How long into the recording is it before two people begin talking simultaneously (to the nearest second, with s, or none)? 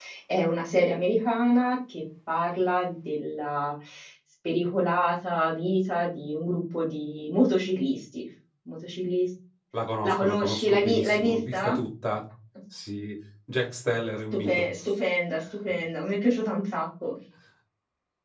10 s